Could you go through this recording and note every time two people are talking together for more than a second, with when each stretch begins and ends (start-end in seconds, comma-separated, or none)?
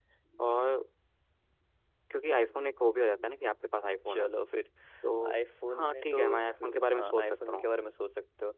5.8-7.7